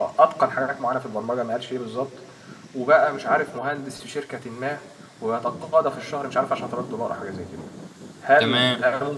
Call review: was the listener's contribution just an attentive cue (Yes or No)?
Yes